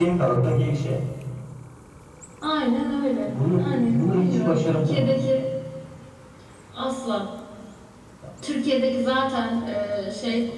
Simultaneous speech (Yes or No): Yes